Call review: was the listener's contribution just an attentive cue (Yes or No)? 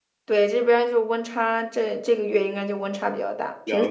No